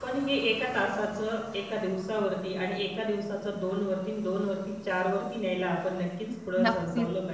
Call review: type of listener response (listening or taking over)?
taking over